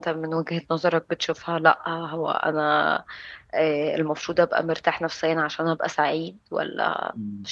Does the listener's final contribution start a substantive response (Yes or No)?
Yes